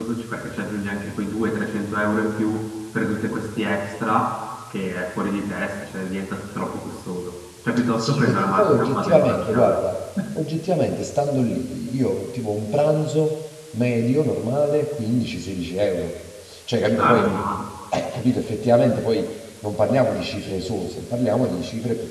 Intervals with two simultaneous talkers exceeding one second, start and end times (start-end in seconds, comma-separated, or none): 8.0-9.8